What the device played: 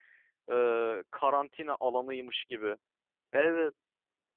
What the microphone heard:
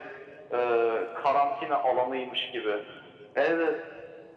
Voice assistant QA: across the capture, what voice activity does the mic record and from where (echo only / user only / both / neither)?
echo only